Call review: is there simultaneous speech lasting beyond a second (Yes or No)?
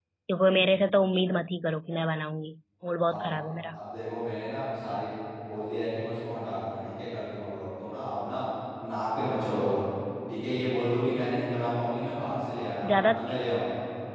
No